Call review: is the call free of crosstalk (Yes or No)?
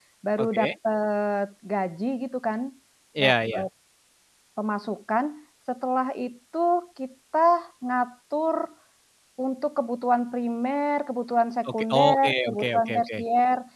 No